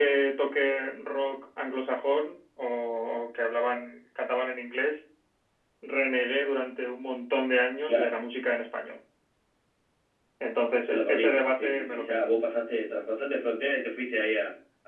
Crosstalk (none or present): present